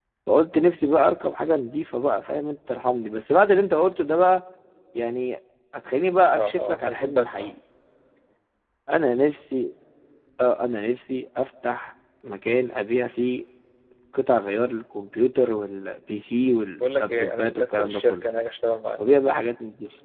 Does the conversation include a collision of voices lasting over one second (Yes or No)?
Yes